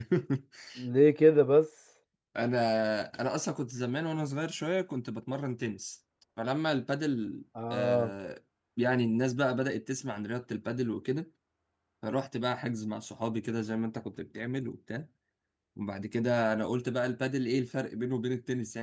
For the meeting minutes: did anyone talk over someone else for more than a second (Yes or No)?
No